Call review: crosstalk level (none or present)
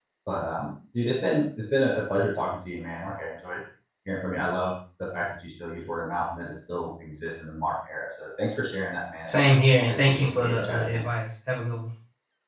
present